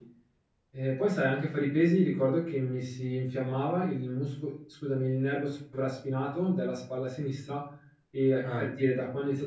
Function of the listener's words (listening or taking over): listening